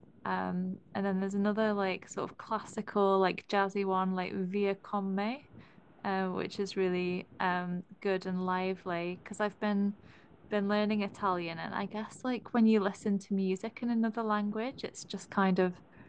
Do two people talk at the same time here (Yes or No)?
No